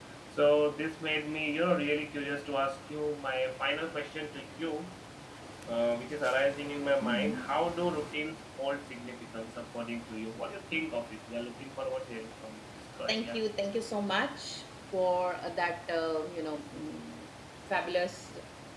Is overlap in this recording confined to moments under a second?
Yes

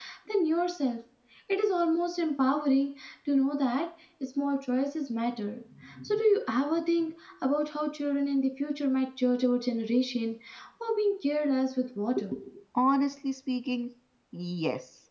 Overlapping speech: No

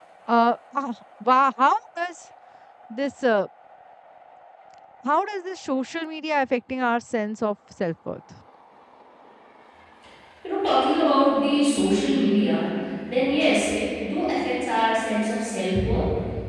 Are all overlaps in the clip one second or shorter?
Yes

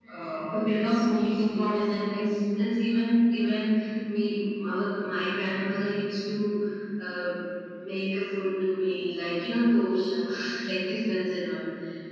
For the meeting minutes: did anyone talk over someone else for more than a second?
Yes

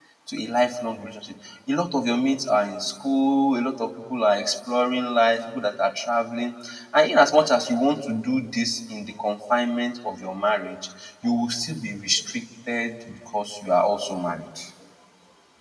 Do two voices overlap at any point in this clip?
No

